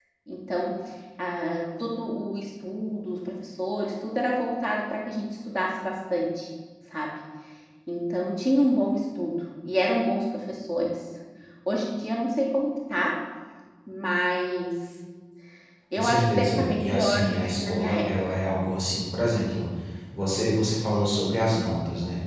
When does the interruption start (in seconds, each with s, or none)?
16.0 s